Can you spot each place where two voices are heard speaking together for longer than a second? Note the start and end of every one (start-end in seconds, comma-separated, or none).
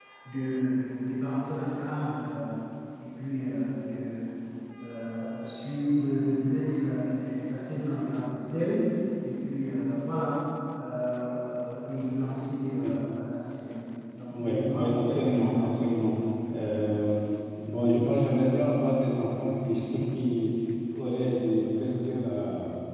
14.3-15.9